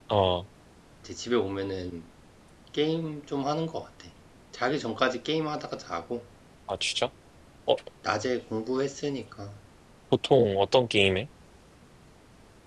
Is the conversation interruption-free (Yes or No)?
Yes